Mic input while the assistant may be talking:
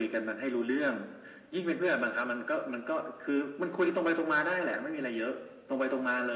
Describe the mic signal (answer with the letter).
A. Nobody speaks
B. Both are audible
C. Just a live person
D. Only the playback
D